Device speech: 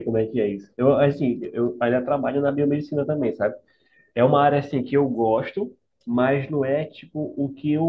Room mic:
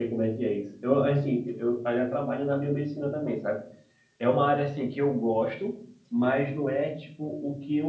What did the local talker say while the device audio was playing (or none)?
none